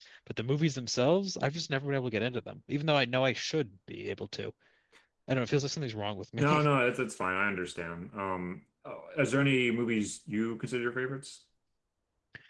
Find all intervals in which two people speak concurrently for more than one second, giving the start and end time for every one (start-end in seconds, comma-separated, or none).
none